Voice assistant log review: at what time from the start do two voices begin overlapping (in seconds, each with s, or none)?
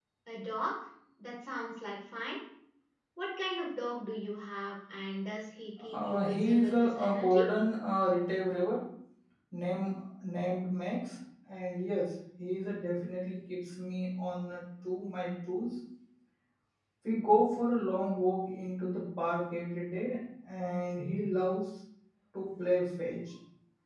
5.9 s